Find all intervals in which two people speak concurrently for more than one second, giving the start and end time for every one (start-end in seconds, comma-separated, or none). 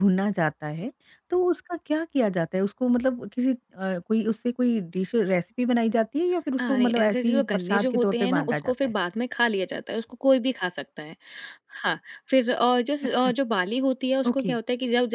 6.6-8.9